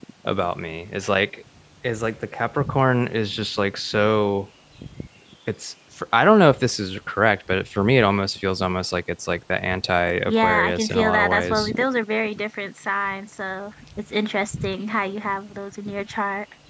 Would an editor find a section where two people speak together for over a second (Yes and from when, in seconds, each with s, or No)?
Yes, from 10.3 s